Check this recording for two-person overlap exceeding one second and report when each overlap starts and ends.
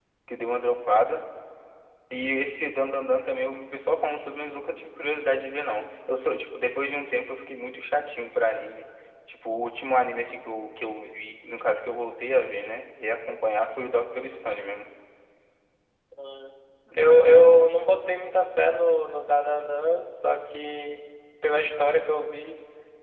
none

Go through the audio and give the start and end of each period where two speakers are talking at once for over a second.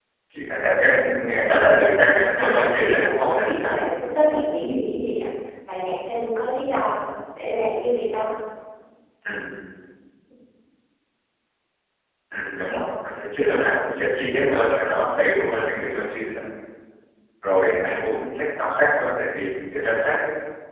1.6-3.8

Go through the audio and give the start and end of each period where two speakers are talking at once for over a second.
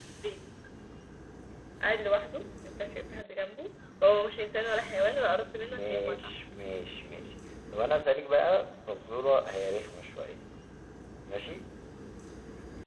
4.8-6.2

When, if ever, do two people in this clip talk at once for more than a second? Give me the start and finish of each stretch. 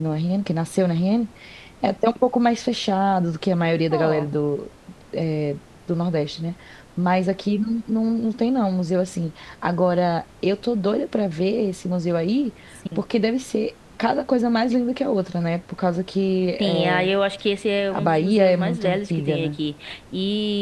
17.9-19.5

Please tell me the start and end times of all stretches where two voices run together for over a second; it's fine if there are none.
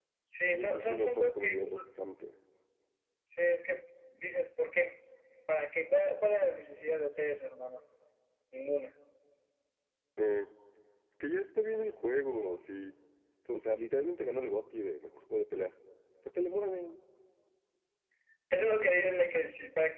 0.5-1.7

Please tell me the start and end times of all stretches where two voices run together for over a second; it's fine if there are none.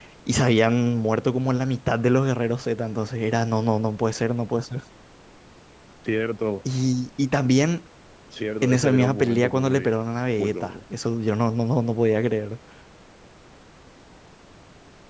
8.6-9.9

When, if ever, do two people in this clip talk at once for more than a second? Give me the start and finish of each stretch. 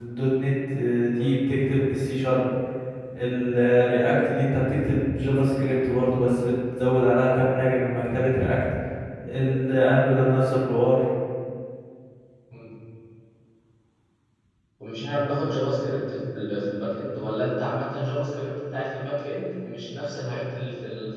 none

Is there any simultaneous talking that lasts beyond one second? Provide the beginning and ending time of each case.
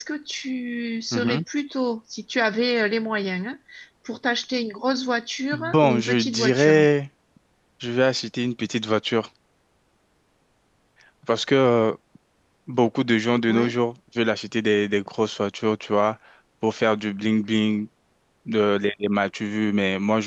5.5-6.8

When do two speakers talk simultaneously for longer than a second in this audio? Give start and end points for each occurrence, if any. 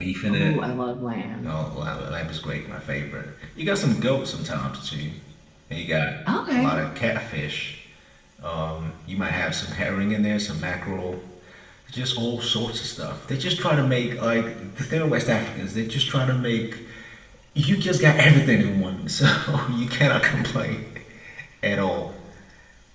none

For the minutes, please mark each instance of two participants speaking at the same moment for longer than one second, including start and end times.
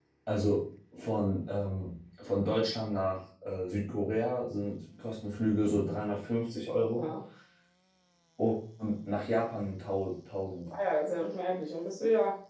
none

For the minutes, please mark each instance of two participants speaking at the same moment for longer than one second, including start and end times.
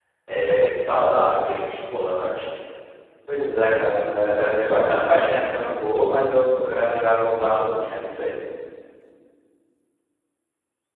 none

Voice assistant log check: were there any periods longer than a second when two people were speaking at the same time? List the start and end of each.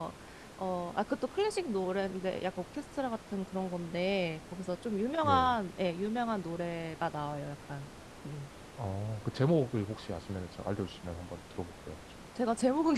none

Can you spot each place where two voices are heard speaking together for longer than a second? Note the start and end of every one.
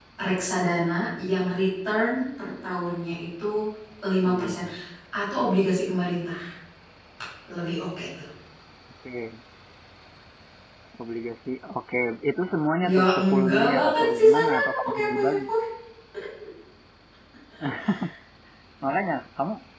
12.9-15.4

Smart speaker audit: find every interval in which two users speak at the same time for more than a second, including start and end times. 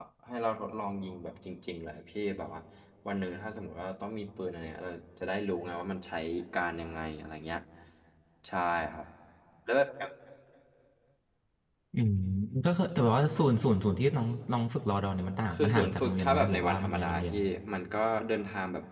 15.5-17.4

